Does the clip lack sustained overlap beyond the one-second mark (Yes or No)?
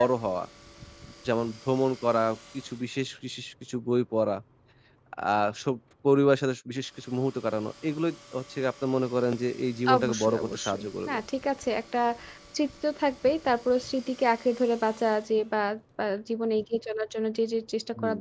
No